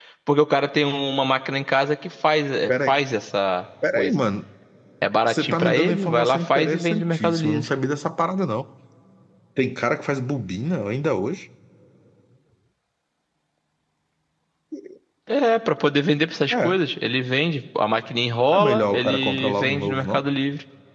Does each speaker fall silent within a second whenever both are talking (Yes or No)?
No